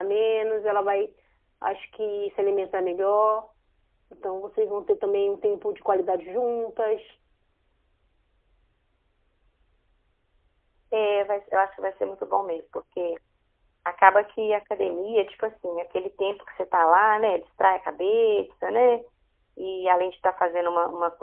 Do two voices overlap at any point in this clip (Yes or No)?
No